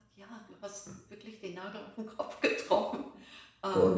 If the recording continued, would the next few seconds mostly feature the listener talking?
Yes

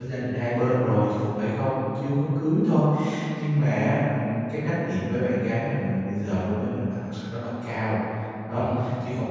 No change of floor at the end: Yes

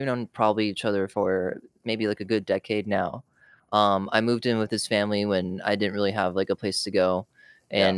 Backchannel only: Yes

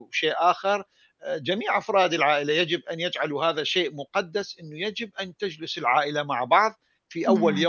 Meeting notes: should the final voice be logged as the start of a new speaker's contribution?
No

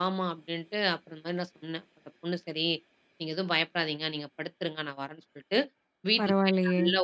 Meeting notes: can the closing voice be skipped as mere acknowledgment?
Yes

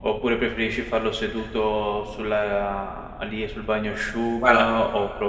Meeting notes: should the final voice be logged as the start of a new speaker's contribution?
No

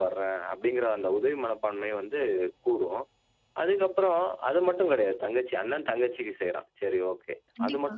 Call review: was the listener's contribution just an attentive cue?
Yes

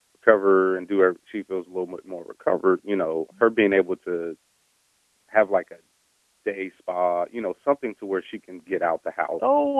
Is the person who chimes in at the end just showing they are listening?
No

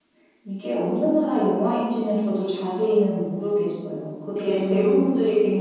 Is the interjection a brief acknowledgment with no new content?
Yes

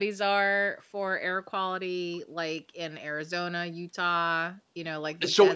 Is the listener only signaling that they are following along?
No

